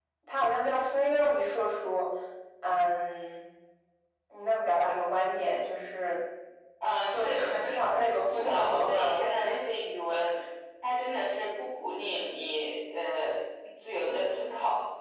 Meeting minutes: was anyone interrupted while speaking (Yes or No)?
Yes